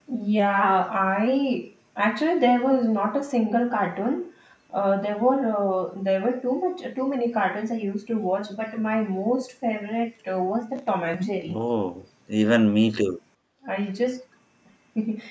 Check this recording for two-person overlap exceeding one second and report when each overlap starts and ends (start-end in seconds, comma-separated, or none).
none